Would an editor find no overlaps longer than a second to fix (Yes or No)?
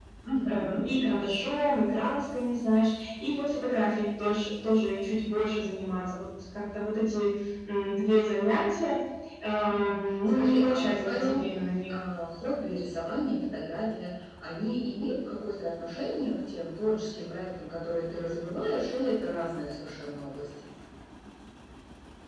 No